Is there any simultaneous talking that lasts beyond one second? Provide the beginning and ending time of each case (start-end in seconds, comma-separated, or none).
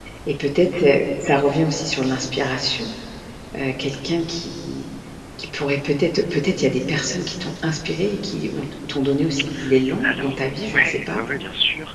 10.0-11.2